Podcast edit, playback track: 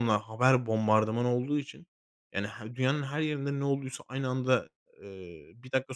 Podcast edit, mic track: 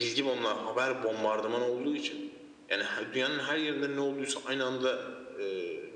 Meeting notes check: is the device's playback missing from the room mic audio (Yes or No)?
No